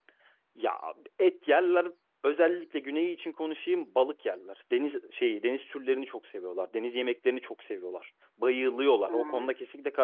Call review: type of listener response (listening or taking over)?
listening